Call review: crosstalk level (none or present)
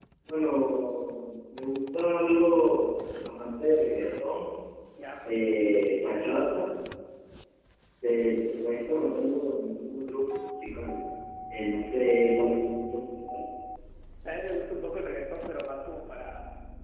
none